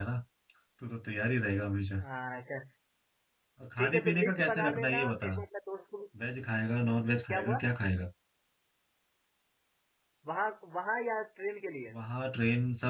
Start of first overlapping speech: 3.8 s

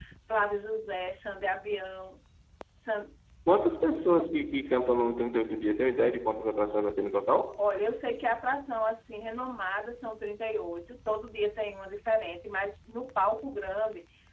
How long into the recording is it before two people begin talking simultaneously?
none

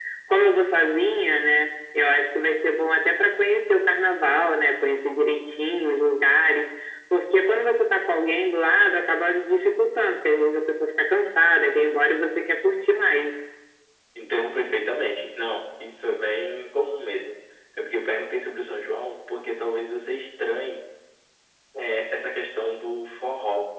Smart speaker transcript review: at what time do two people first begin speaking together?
none

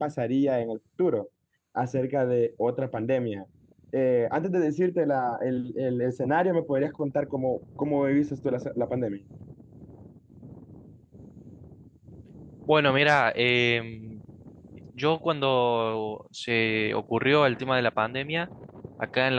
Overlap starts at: none

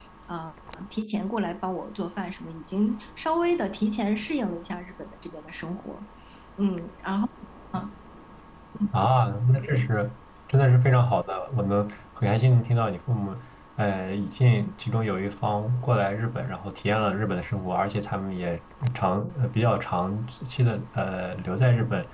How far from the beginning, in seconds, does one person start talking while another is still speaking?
none

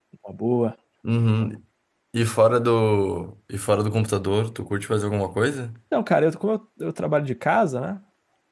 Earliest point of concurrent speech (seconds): none

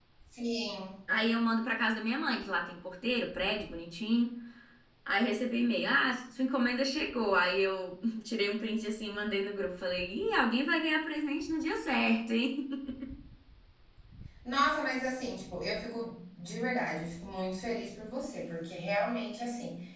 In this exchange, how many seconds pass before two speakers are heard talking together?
none

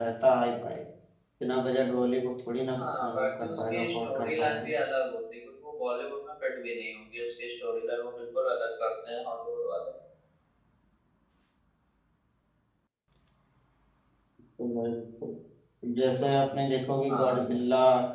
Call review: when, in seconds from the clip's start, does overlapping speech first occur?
2.8 s

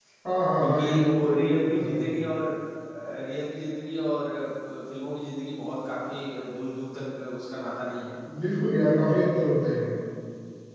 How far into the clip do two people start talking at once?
0.6 s

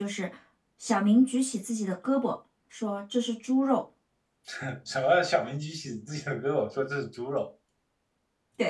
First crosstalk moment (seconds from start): none

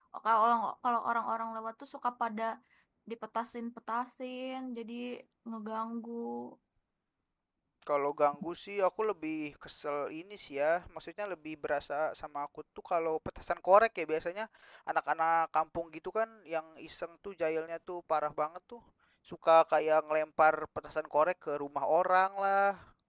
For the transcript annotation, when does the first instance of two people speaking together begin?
none

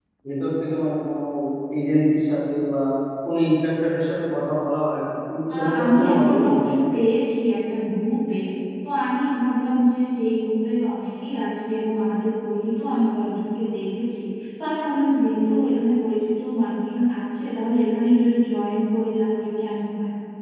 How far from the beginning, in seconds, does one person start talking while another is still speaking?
5.5 s

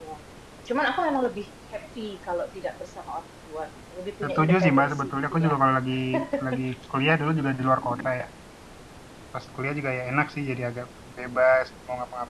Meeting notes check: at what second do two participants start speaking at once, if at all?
4.2 s

